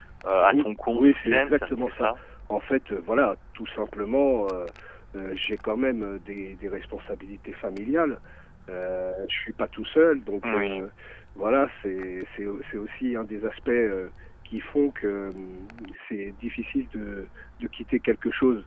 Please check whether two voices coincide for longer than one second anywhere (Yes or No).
Yes